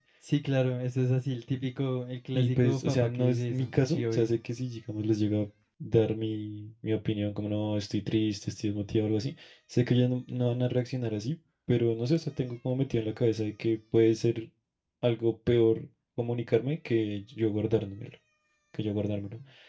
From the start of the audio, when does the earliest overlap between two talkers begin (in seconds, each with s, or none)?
2.3 s